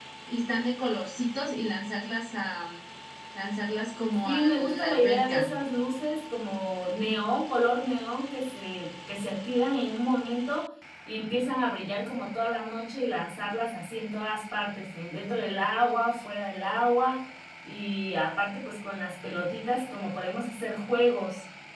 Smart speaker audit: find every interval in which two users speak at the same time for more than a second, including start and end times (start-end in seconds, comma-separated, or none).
4.2-5.5